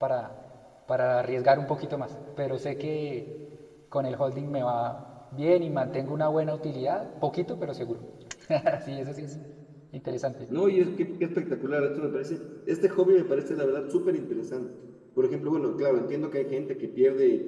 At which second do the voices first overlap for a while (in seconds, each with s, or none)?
none